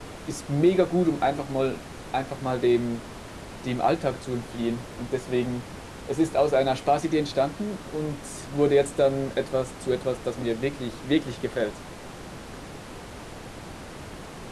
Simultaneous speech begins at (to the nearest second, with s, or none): none